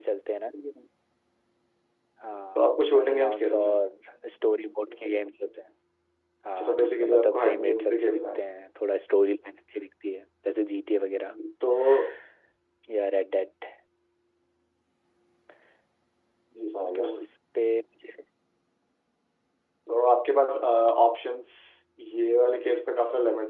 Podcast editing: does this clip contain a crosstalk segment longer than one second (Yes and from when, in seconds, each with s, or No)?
Yes, from 2.6 s